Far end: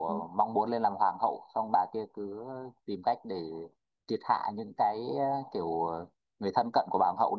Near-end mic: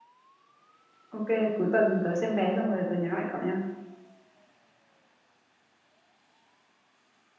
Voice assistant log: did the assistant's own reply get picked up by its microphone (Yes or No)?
No